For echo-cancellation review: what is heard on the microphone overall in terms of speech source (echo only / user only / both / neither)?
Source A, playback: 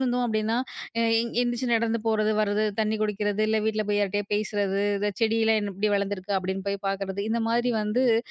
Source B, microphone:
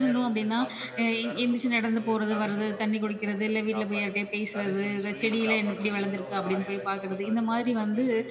both